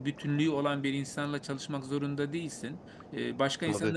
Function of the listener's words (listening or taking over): listening